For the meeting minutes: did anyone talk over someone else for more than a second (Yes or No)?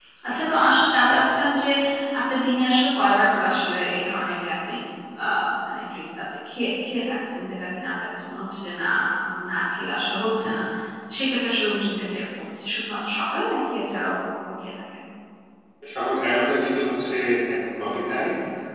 No